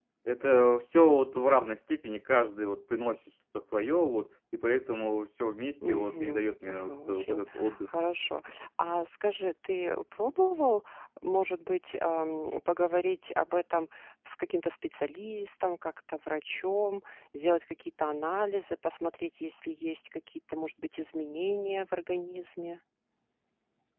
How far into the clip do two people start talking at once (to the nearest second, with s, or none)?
6 s